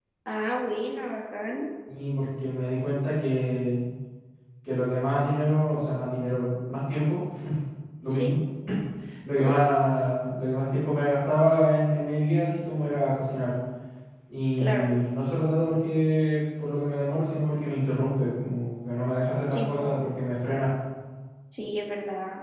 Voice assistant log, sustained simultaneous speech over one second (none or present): none